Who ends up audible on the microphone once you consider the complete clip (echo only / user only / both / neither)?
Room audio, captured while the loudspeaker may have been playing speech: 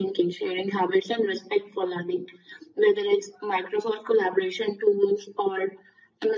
echo only